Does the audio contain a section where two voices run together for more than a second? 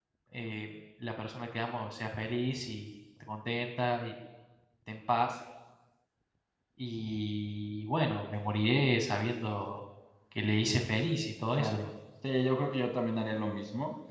No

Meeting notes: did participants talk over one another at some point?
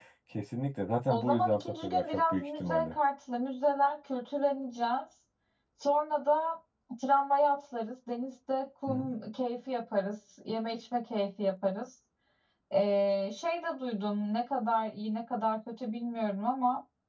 Yes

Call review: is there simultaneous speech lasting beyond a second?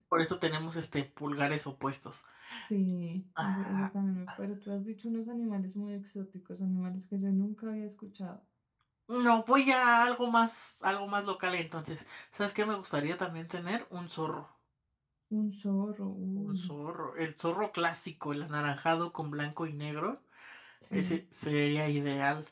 No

